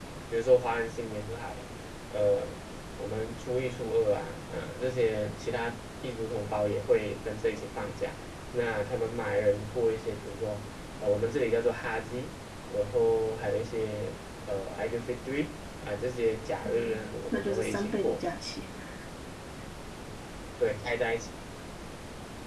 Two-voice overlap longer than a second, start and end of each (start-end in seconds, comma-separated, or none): 16.6-18.2